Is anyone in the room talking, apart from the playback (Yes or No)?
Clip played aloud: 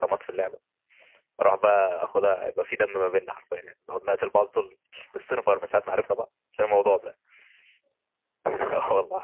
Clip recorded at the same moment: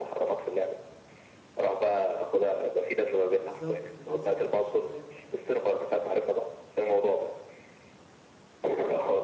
Yes